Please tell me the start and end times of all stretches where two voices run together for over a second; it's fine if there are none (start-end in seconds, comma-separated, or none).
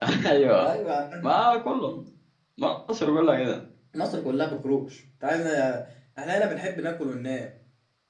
none